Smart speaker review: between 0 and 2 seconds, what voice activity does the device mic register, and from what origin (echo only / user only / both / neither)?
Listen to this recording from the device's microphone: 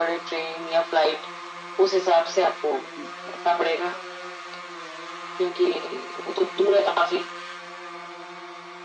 echo only